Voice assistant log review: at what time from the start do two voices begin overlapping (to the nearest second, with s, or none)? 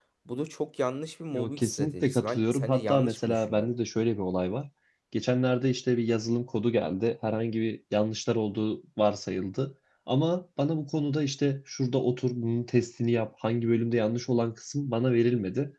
1 s